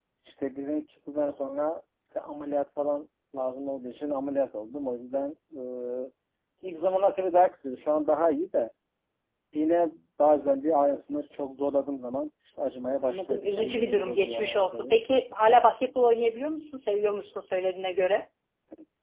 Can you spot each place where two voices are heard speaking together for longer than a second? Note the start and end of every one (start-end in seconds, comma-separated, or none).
13.0-15.0